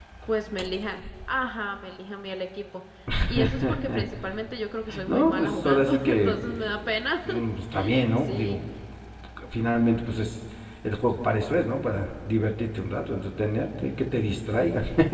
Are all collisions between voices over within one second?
No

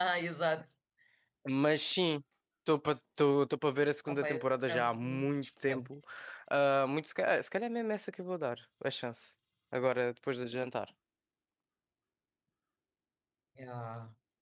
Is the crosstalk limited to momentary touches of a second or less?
No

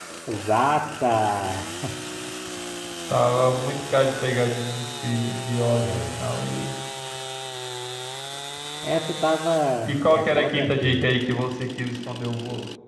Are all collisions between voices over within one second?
No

